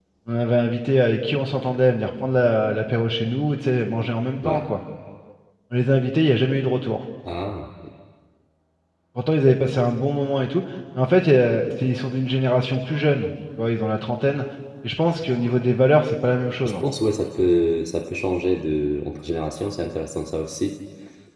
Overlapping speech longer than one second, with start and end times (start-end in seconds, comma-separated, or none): none